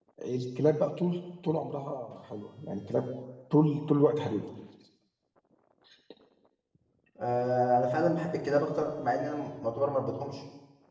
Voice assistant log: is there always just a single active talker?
Yes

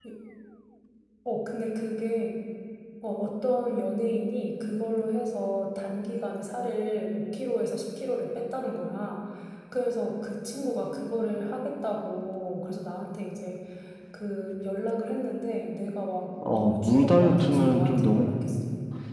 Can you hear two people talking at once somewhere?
Yes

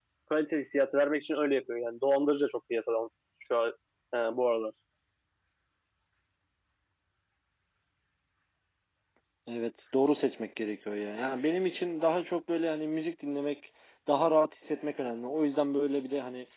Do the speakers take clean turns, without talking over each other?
Yes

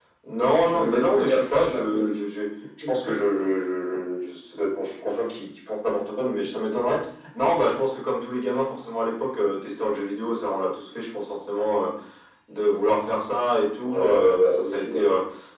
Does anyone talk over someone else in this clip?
Yes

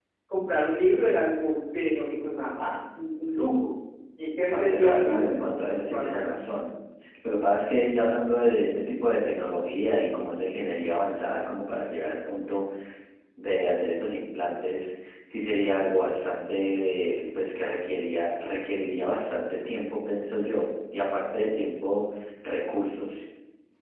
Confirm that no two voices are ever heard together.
No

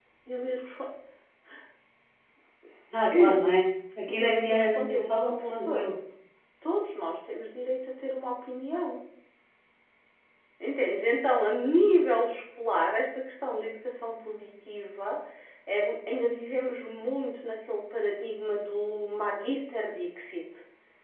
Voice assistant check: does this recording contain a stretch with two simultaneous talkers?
Yes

